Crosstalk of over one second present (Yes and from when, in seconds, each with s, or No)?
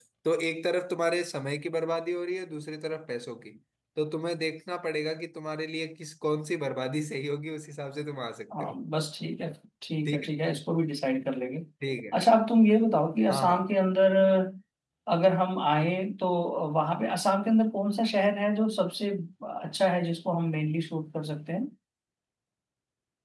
No